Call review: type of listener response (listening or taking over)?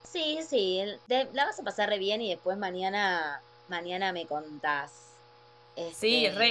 taking over